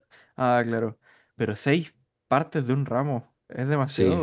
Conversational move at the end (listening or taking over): taking over